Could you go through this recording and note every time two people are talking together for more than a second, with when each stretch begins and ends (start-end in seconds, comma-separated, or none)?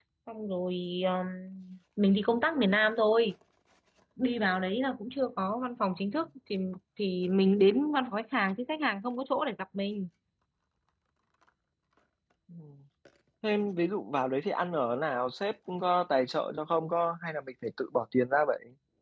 none